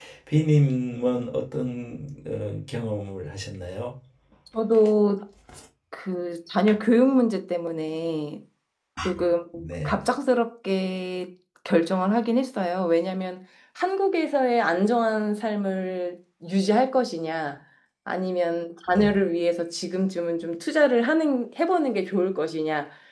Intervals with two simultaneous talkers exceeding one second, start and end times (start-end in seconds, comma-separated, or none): none